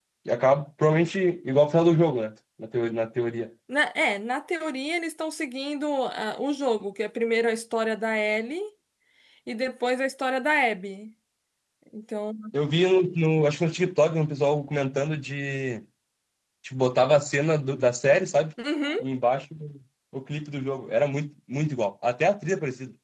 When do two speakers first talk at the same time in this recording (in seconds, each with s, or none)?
none